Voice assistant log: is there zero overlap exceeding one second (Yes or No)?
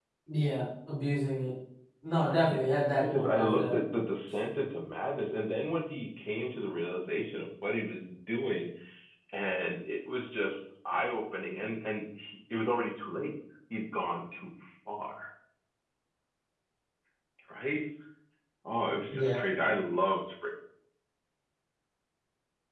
No